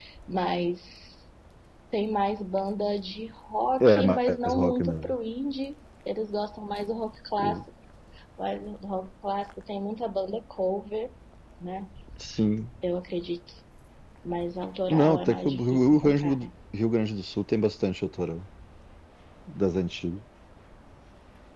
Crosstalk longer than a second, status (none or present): present